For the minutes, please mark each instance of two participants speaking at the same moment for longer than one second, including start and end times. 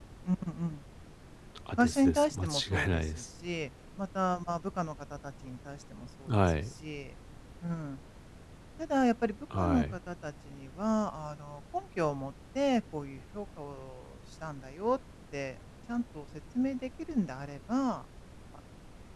1.8-3.1

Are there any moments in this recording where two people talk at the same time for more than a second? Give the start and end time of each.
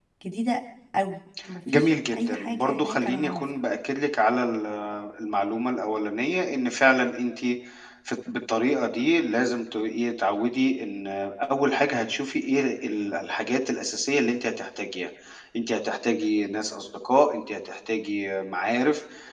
1.7-3.4

